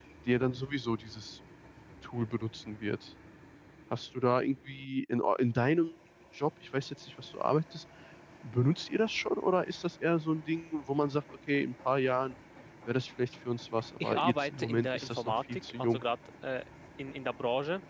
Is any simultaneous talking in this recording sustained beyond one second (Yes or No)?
Yes